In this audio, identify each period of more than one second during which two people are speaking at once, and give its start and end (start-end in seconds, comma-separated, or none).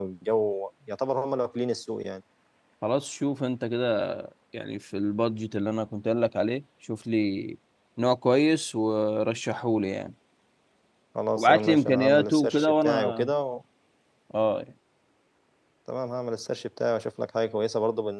11.4-13.3